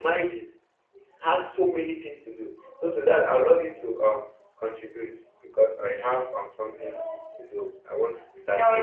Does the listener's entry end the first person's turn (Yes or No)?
Yes